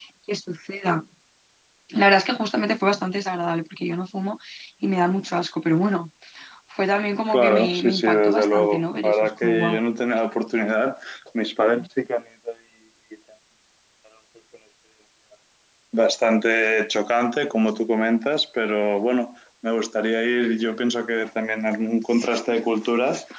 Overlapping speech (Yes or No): Yes